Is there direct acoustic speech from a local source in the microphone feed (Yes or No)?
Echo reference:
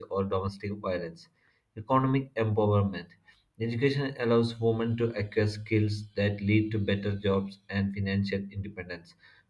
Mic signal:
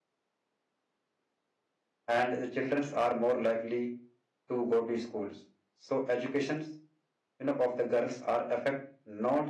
Yes